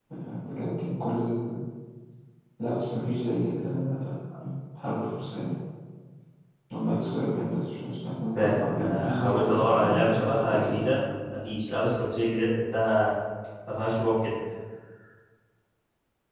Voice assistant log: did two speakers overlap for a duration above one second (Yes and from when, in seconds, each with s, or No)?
Yes, from 8.3 s